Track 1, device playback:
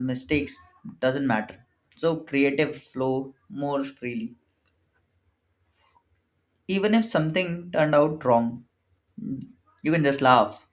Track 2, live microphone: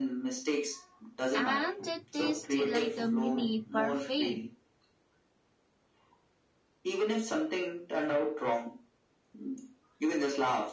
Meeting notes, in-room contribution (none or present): present